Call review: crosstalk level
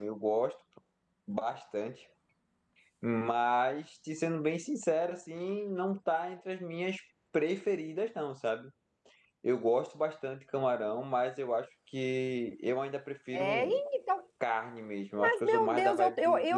present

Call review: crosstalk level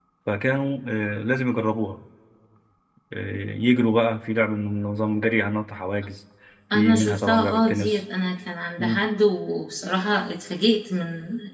present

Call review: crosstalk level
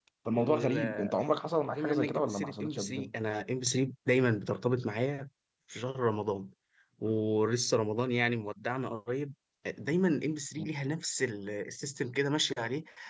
present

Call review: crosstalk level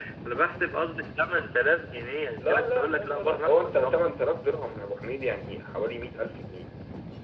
present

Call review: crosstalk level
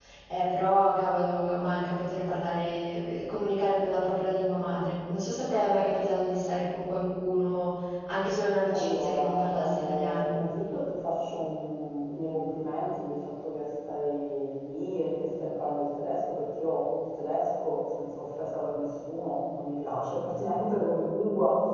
present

